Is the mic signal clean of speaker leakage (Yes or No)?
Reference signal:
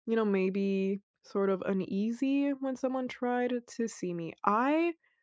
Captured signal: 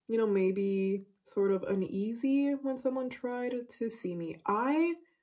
No